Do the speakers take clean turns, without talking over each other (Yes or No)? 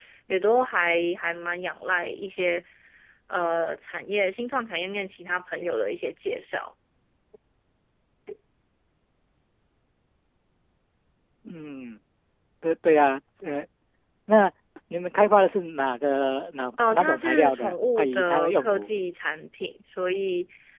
No